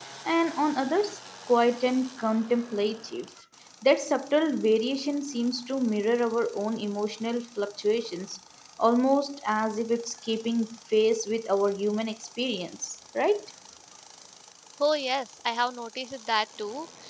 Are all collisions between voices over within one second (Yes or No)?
Yes